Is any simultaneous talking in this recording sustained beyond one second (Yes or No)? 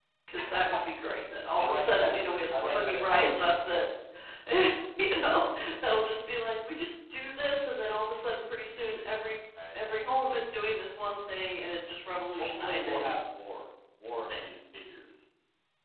Yes